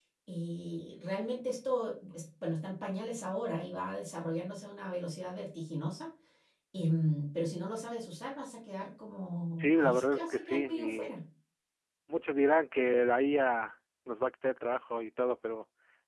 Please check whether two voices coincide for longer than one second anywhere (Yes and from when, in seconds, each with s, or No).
Yes, from 9.6 s